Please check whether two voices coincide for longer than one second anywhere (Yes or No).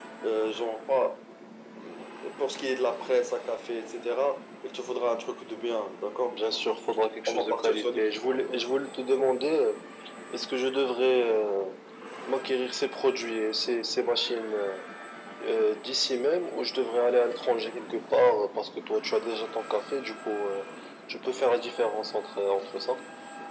Yes